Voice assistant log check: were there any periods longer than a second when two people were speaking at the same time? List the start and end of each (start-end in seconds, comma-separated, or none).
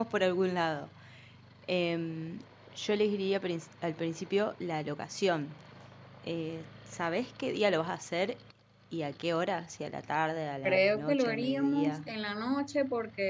10.6-12.1